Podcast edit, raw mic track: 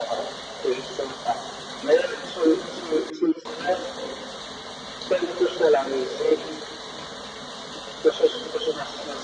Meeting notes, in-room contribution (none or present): none